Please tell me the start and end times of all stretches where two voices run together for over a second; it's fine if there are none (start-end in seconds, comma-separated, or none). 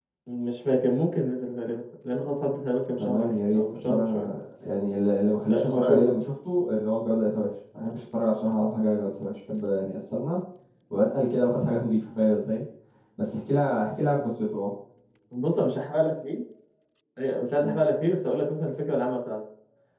3.0-4.3